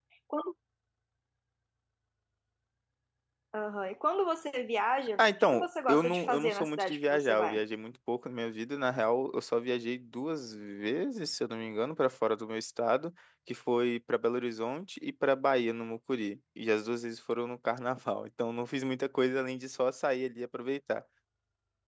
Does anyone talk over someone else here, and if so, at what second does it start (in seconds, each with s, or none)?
5.2 s